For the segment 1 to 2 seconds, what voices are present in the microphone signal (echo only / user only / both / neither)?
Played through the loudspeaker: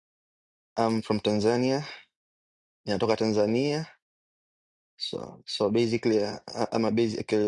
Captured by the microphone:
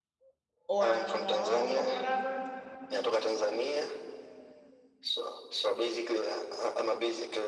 both